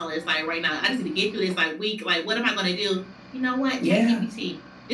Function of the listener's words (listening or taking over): listening